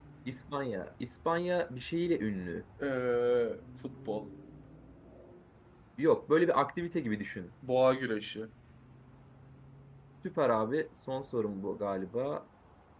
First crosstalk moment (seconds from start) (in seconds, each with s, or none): none